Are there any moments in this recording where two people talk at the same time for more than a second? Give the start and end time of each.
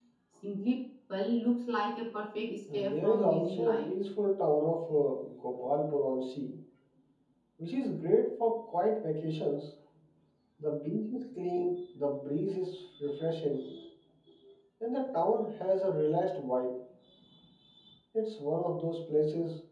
2.7-3.9

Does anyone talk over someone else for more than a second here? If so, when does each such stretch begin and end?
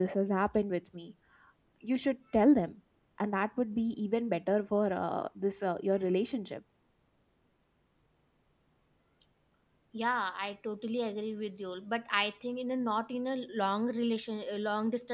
none

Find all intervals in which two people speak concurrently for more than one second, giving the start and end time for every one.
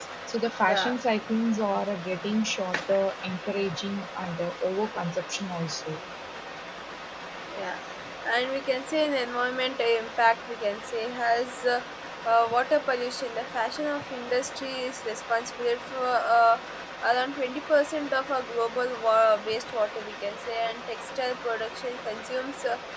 none

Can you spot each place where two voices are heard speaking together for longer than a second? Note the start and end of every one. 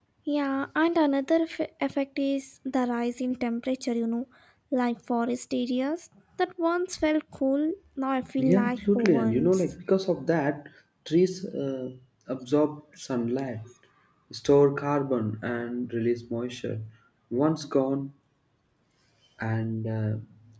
8.4-9.6

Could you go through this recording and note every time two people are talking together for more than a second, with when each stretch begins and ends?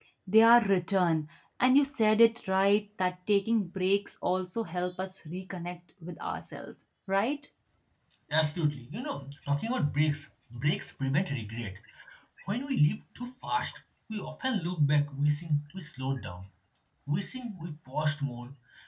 none

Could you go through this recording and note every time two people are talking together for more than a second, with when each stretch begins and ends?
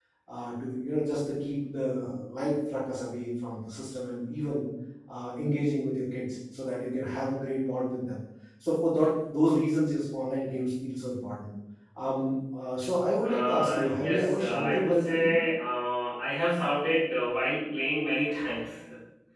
13.2-15.3

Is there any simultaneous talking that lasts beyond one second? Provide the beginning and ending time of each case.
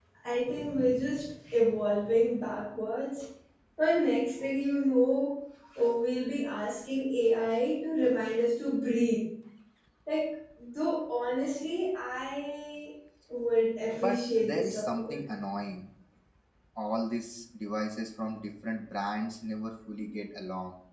13.9-15.2

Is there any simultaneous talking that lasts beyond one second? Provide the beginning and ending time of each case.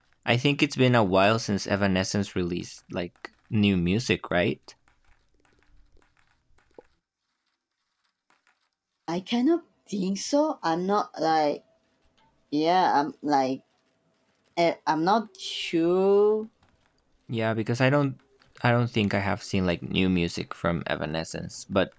none

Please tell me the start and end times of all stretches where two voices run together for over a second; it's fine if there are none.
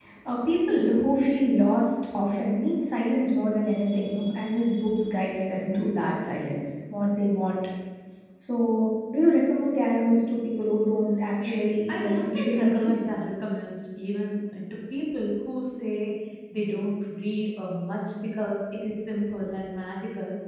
11.4-13.0

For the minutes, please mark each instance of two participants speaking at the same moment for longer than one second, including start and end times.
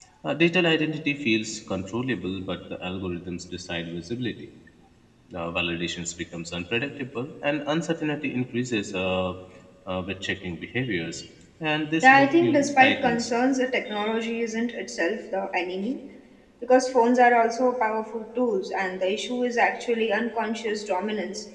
12.0-13.3

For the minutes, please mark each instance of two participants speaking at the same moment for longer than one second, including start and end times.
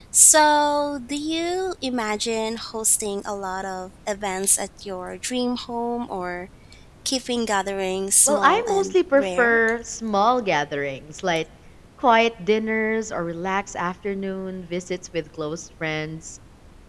8.3-9.6

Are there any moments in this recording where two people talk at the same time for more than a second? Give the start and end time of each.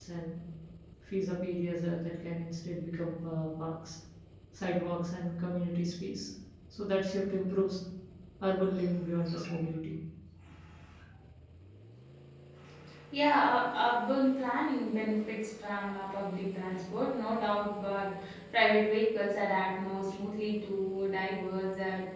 none

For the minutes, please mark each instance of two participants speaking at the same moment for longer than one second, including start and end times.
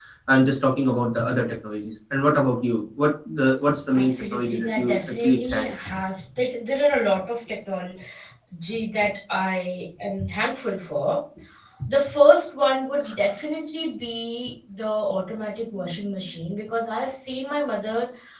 3.9-5.7

